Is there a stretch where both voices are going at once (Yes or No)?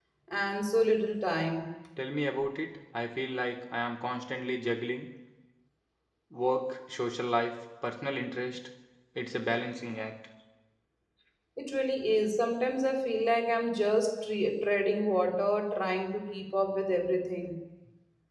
No